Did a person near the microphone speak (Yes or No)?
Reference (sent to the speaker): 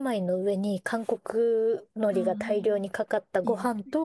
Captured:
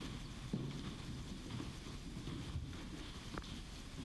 No